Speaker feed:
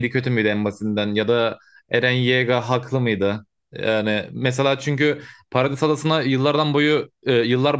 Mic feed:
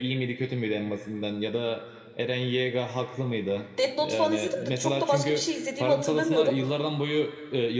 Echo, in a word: present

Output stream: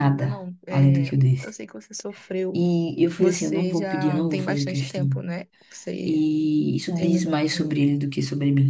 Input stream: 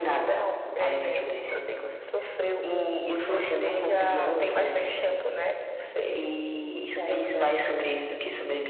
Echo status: present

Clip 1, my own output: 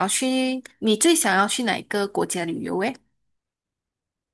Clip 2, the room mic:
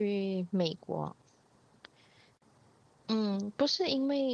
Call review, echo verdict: none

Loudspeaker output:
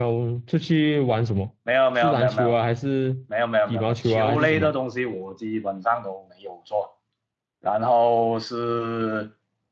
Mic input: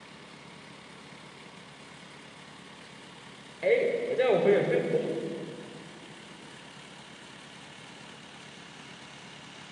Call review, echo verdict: none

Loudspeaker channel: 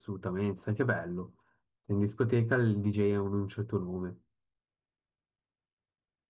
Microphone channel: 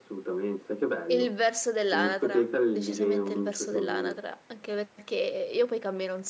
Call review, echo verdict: present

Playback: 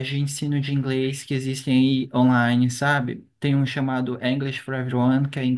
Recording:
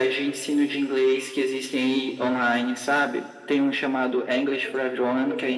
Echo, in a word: present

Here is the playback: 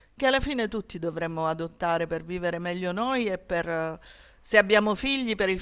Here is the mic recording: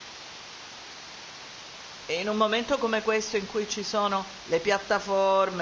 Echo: none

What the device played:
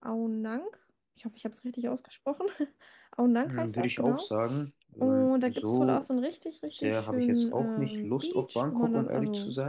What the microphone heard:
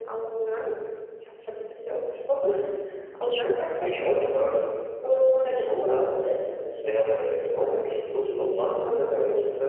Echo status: present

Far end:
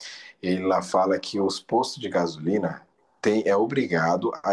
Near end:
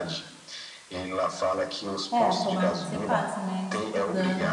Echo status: present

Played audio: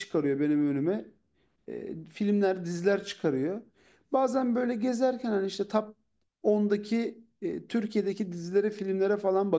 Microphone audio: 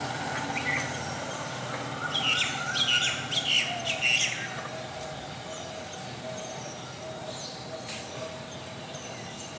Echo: none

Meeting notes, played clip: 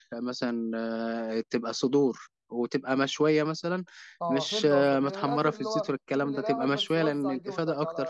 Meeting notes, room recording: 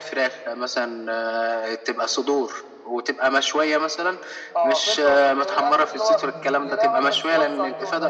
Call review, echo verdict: present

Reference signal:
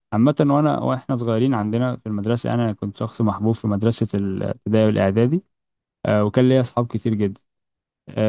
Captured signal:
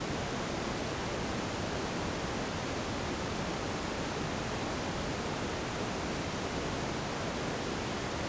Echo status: none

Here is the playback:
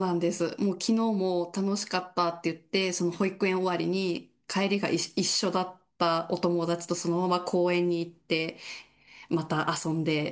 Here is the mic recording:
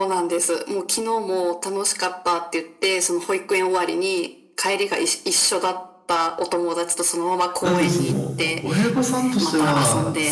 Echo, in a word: present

